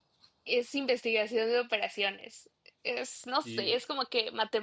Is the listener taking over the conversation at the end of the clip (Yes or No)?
No